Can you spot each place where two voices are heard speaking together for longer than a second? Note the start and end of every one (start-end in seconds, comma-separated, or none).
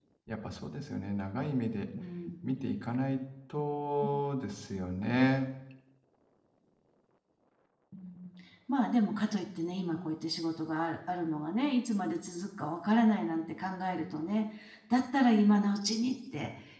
none